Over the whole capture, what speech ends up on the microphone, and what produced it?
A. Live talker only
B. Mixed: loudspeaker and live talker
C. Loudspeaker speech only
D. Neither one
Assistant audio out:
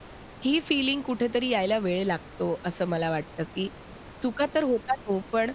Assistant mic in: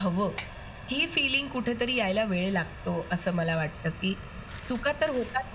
C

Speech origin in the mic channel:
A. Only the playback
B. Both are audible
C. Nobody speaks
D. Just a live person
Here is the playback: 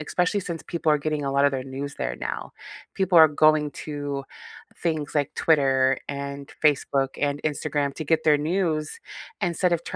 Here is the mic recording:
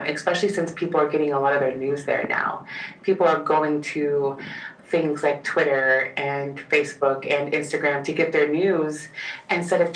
A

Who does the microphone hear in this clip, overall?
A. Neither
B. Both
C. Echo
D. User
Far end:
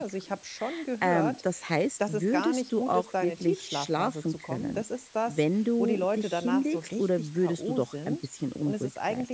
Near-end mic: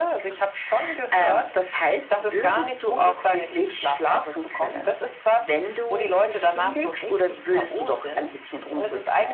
C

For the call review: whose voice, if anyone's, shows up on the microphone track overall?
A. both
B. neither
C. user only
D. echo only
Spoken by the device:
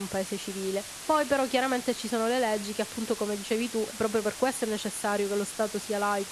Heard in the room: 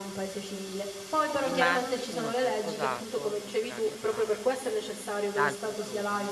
A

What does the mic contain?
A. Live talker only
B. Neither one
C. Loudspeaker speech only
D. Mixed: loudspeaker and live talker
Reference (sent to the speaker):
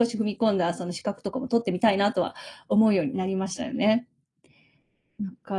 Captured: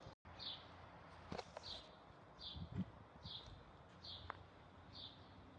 B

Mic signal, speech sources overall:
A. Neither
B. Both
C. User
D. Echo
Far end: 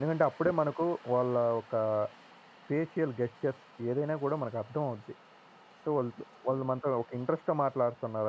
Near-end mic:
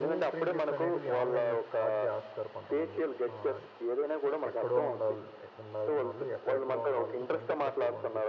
B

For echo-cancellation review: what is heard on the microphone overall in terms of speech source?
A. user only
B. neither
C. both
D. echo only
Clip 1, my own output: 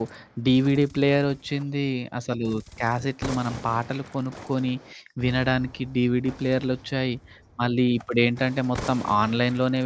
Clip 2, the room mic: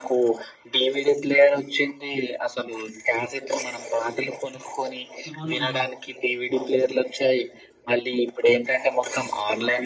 C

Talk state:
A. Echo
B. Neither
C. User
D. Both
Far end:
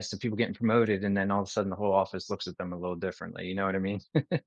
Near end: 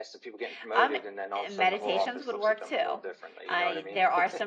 D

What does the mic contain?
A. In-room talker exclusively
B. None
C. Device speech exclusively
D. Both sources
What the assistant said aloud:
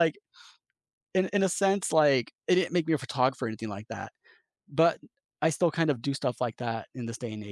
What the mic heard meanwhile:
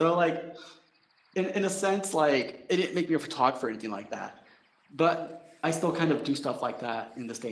C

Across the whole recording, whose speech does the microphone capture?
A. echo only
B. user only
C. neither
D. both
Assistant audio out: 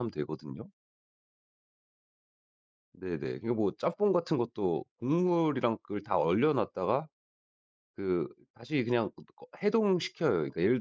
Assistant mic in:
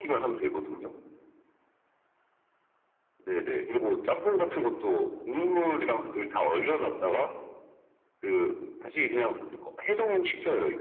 A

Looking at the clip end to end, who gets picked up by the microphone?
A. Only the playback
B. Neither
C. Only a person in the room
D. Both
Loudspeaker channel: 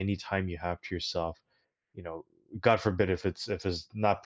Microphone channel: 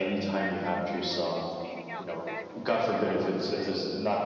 D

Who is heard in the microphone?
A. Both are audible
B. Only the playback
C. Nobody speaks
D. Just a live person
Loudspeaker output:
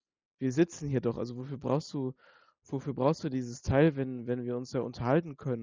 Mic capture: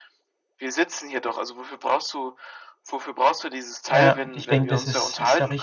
A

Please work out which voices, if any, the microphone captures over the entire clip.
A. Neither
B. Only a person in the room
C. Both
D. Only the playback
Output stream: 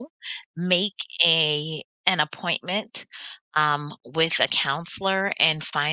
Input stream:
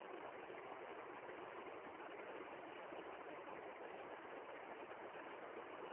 A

